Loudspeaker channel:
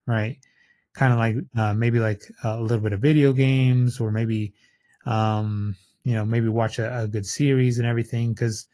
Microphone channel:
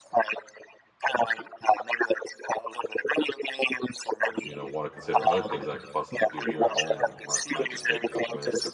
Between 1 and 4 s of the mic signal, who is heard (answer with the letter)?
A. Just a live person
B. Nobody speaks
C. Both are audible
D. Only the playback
D